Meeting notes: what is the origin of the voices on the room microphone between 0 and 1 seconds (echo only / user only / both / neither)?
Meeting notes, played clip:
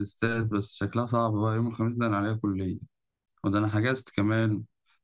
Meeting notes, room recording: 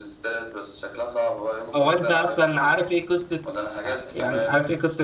echo only